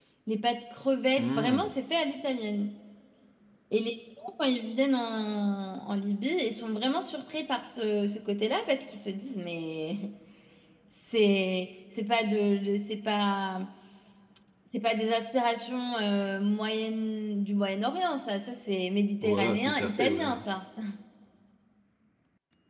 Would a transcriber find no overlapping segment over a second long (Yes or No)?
No